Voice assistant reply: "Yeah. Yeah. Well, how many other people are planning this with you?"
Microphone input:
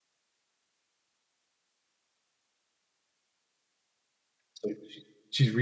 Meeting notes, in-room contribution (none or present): present